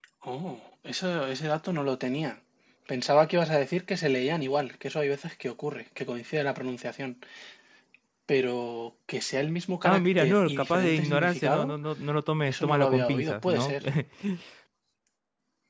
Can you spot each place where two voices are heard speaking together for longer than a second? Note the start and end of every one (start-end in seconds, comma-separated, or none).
9.8-11.7, 12.5-13.7